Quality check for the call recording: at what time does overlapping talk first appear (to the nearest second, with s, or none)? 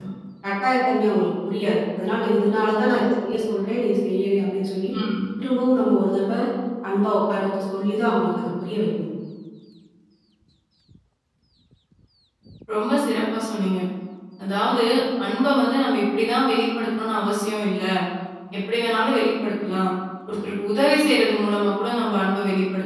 none